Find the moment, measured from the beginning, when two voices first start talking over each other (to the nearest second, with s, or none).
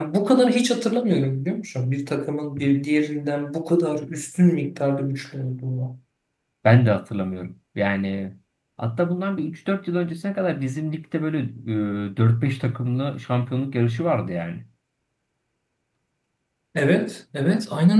none